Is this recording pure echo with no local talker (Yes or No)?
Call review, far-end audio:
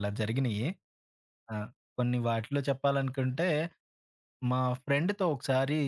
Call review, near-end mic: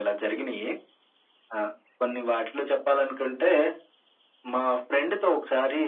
Yes